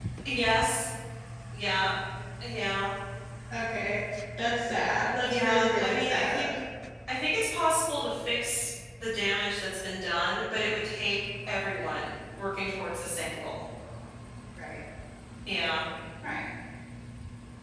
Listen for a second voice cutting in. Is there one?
Yes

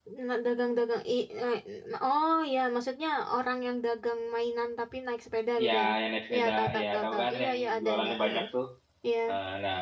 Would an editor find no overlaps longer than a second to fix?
No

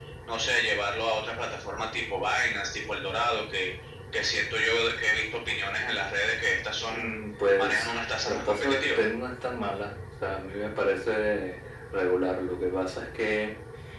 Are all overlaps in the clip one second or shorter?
No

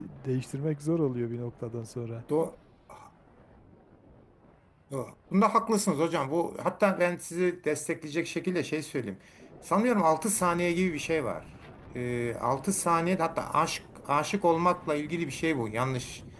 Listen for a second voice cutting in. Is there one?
No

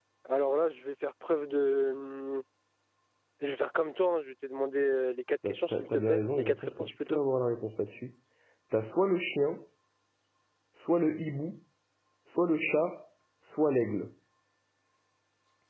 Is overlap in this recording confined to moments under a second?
No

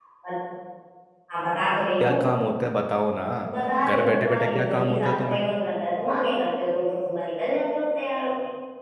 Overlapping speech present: Yes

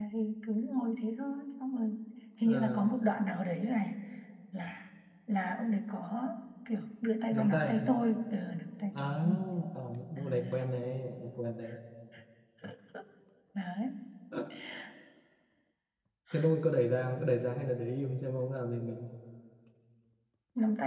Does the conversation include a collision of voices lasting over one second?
No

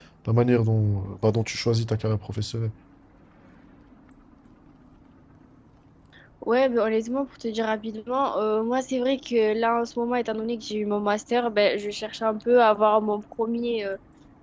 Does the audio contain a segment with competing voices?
No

